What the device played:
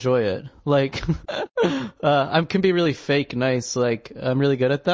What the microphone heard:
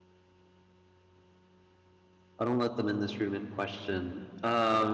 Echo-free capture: Yes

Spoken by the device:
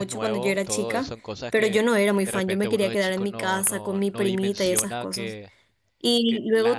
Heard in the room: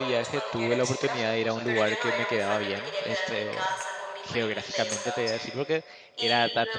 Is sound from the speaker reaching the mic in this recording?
Yes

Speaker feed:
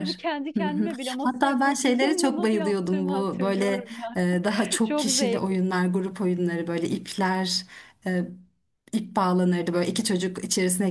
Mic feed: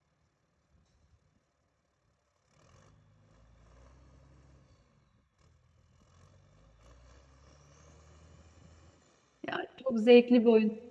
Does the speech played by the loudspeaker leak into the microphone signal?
No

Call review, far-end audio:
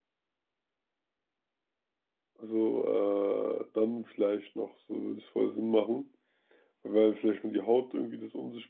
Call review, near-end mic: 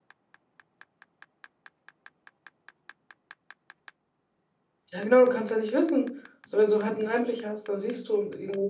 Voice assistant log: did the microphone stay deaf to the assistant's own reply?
Yes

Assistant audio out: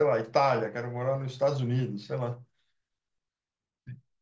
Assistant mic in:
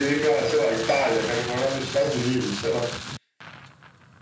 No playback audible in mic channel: No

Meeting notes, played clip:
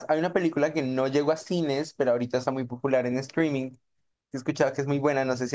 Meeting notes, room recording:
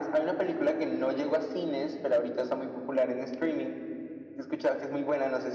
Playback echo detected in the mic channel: Yes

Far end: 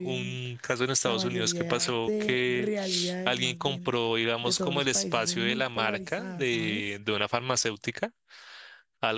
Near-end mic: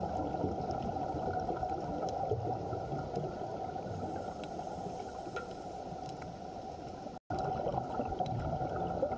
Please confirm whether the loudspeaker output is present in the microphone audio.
No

